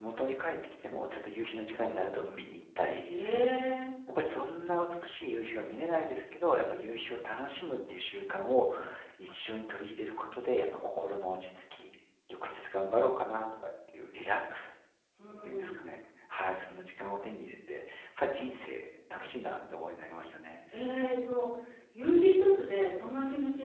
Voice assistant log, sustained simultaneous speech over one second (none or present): none